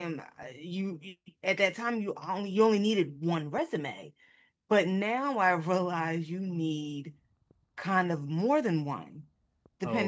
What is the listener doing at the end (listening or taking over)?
listening